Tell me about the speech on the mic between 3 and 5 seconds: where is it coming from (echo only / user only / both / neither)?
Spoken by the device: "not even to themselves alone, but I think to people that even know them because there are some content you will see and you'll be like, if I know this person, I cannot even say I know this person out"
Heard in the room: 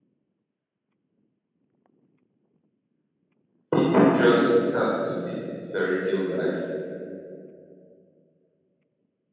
user only